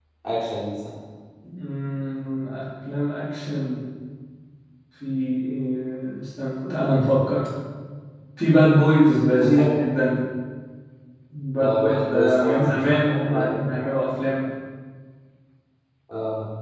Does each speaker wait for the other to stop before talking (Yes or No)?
No